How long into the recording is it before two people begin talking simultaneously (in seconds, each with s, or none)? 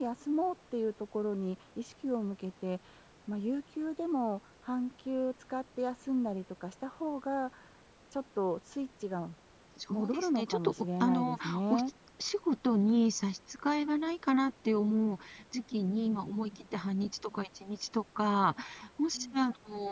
9.9 s